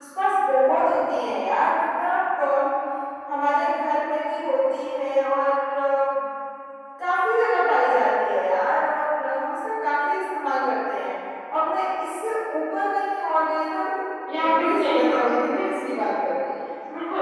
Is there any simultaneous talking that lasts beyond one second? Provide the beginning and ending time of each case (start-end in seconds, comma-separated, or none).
14.3-15.6